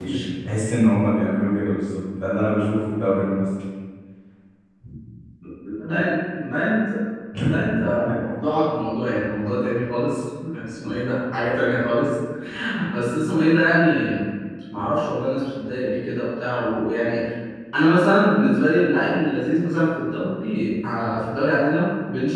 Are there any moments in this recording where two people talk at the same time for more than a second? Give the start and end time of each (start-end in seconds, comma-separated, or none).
none